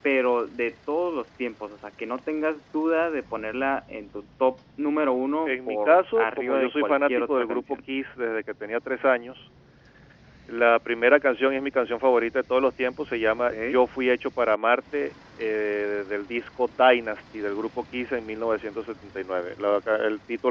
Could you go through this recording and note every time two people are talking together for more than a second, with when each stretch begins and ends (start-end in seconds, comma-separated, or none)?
5.5-7.6